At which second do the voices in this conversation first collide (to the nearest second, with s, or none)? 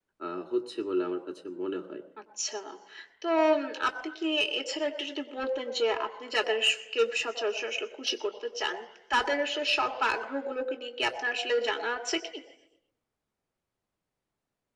none